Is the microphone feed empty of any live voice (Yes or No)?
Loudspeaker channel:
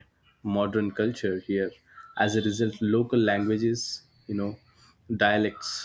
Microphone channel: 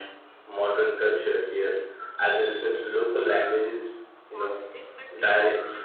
No